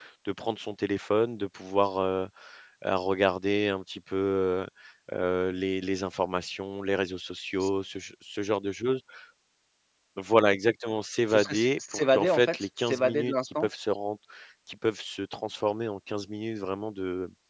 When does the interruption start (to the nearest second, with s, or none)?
11 s